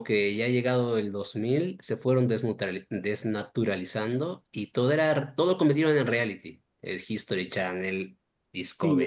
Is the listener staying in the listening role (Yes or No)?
No